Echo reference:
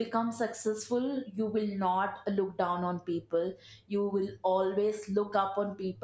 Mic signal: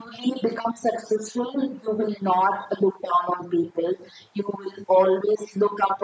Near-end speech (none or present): none